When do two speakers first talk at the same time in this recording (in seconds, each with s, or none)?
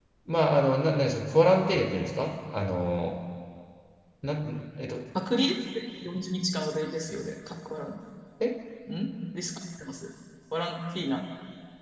none